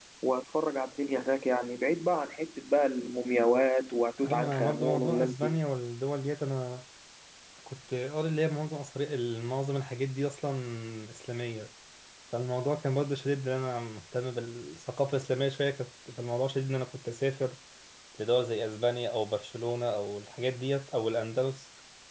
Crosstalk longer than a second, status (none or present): present